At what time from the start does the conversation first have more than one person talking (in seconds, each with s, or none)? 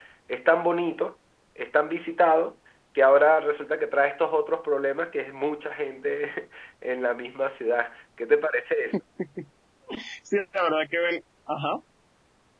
none